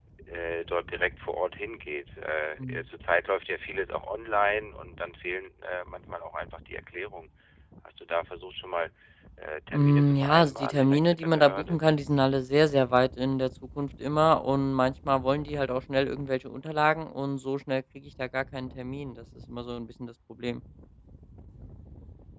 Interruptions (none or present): present